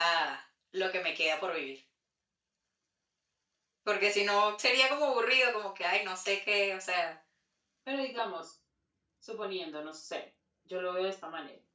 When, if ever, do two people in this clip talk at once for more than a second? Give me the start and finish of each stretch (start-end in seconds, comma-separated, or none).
none